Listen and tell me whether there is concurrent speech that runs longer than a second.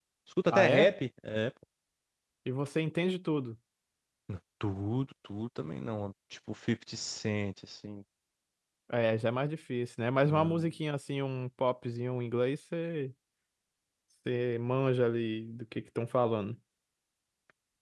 No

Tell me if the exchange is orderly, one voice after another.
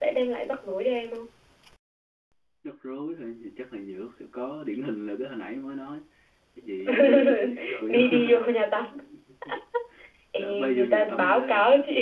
No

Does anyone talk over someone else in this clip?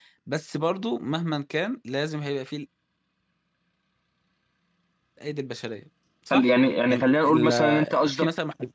Yes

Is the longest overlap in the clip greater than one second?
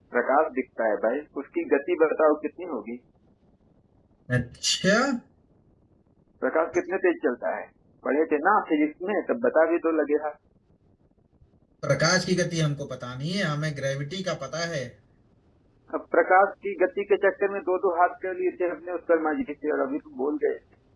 No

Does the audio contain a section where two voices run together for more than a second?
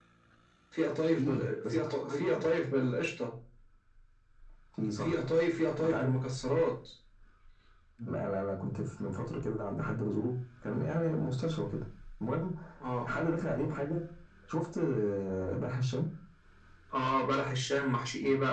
Yes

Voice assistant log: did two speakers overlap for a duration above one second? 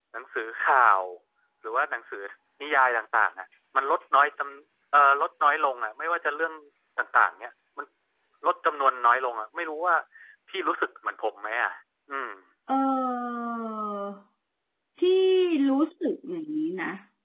No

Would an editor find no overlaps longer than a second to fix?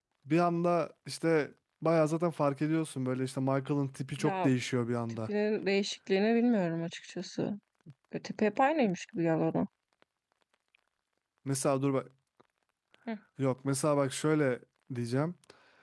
Yes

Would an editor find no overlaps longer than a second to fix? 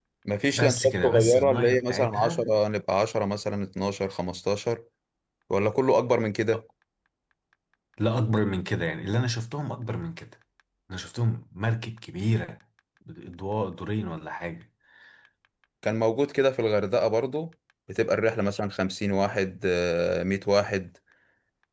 No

